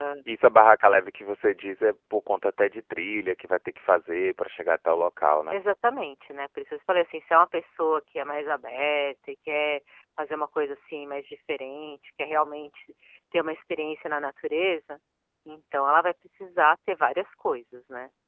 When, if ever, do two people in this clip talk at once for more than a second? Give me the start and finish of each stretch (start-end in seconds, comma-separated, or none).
none